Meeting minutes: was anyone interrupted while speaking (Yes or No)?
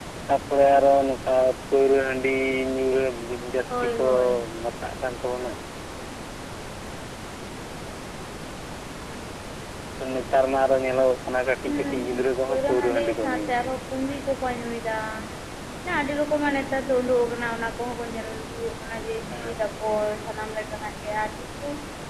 Yes